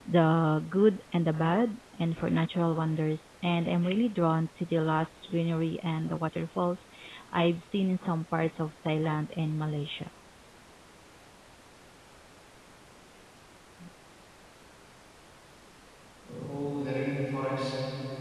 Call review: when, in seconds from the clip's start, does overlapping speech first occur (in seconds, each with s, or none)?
none